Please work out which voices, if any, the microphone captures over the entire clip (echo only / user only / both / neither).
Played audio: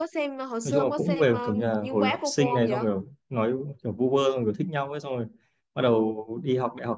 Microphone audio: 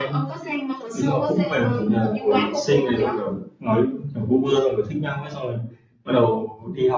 echo only